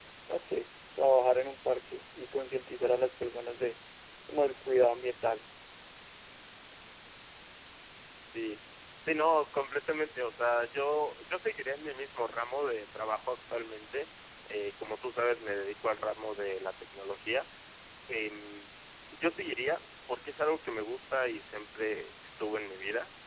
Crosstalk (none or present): none